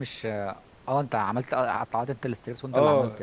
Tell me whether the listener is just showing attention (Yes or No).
No